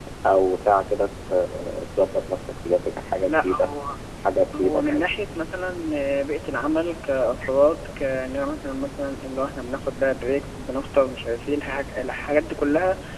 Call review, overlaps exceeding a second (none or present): none